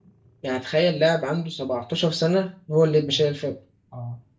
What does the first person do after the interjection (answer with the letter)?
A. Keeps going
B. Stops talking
B